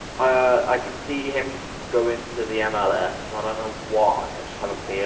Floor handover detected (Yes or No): No